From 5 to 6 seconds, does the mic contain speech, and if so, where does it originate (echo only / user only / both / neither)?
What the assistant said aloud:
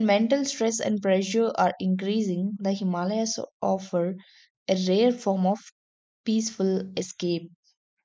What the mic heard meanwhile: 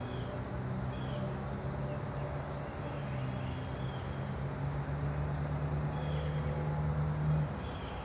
neither